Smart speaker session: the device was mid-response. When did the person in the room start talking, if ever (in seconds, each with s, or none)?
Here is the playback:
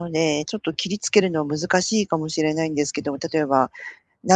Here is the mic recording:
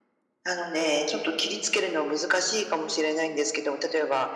none